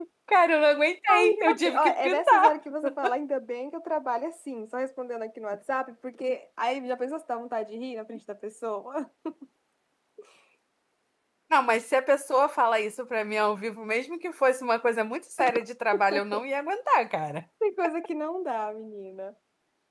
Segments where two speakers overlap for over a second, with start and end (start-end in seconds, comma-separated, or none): 1.1-2.6